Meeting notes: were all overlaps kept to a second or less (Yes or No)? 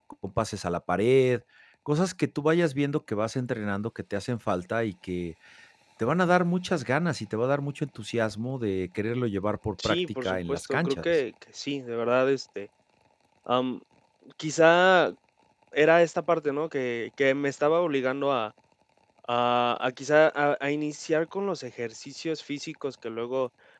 No